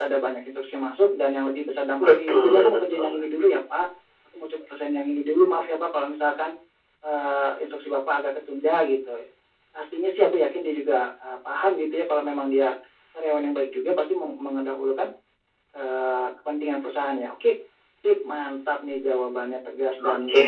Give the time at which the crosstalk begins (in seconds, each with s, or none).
2.0 s